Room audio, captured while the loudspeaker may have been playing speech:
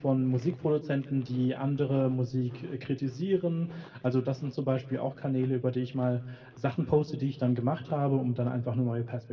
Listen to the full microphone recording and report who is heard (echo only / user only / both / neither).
echo only